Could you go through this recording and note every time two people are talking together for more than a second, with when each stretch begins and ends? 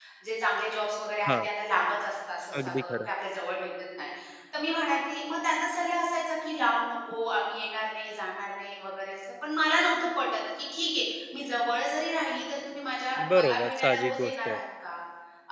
13.3-14.6

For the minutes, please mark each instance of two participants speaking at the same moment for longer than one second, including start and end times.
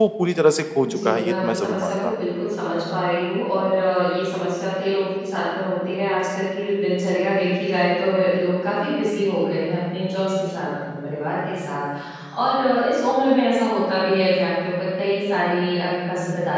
0.9-2.1

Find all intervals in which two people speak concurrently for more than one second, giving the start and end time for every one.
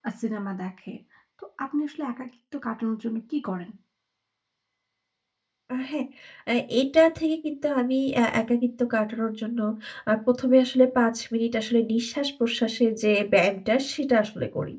none

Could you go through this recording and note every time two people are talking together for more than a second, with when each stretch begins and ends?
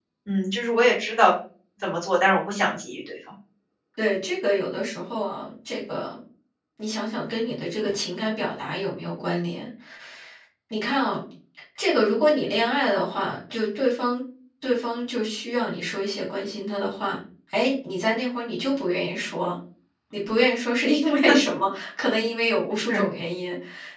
none

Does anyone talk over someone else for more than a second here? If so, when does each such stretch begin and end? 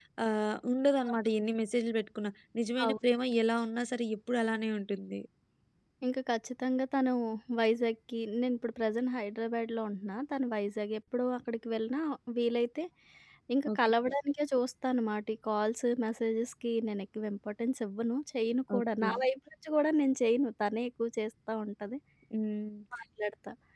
none

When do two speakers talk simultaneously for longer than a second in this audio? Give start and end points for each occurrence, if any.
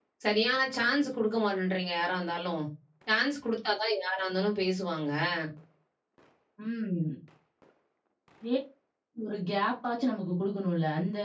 none

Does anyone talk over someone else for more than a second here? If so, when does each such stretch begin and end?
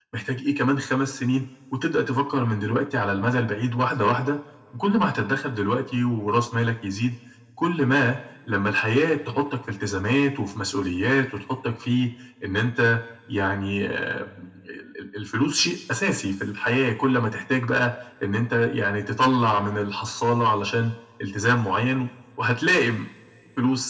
none

